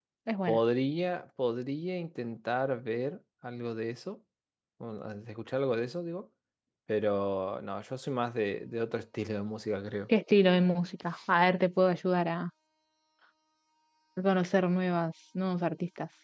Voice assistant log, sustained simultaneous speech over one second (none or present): none